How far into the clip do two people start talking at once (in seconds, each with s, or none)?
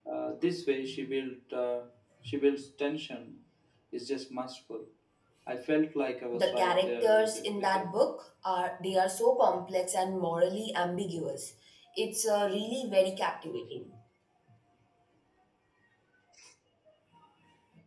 6.3 s